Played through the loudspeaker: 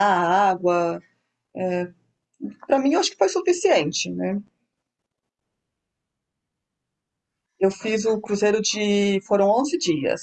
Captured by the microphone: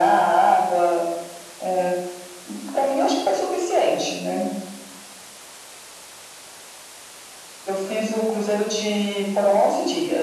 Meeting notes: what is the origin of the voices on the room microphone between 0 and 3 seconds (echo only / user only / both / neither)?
echo only